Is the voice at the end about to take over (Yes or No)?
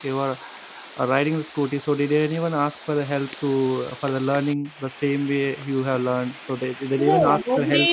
Yes